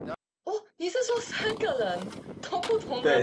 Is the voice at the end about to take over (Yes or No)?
Yes